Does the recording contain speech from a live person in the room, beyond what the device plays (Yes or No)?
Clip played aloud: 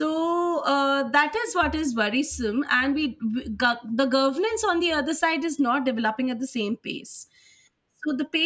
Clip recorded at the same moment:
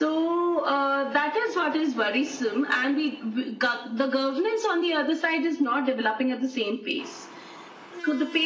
No